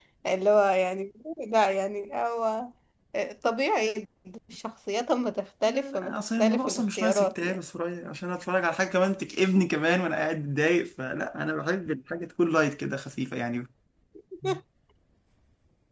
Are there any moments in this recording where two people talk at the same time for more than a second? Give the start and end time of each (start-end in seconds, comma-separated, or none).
5.7-7.6